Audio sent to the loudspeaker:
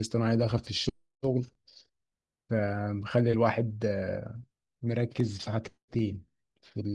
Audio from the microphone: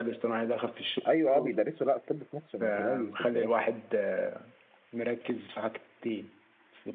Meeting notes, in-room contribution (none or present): present